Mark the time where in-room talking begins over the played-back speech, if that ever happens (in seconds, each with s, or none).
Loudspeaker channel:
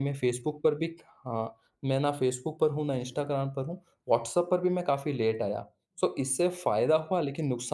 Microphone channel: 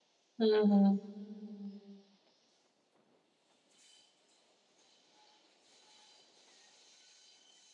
0.4 s